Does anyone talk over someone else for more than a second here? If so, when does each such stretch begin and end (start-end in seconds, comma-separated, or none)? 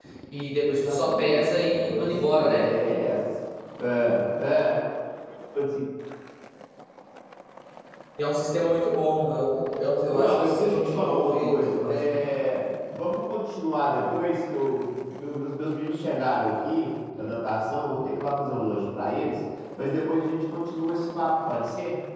0.6-2.6, 10.1-12.2